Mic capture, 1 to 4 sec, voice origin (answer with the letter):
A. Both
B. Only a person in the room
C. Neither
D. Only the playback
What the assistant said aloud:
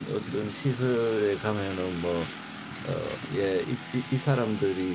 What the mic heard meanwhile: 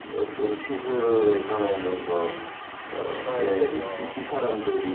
A